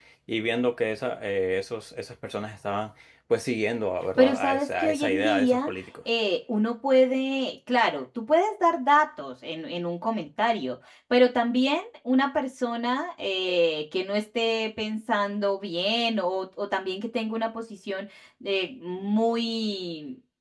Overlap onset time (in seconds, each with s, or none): 4.2 s